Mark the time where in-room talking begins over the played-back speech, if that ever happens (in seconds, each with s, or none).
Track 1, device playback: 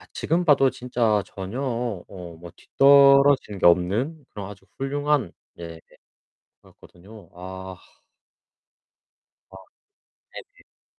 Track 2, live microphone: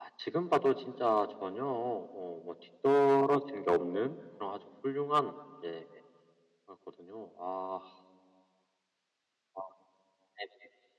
none